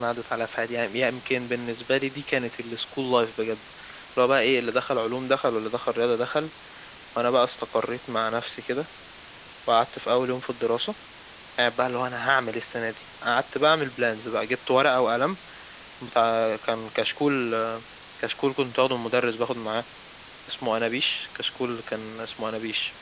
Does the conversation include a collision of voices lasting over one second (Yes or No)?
No